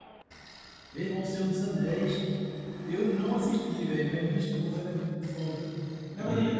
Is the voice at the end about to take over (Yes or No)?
No